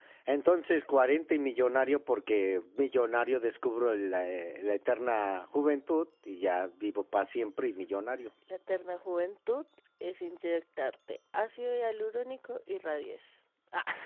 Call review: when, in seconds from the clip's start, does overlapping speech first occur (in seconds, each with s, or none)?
none